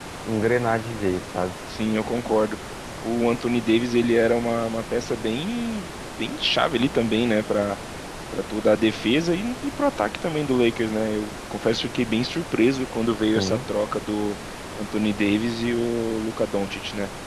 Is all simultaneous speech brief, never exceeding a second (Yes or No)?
Yes